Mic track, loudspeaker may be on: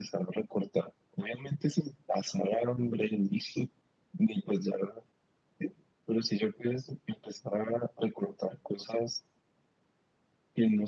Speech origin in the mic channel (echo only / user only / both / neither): echo only